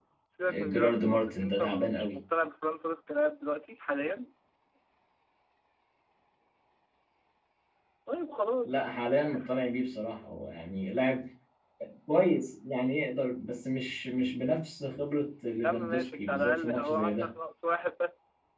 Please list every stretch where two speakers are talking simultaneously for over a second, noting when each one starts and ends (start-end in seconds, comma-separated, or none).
0.7-2.2, 15.6-17.3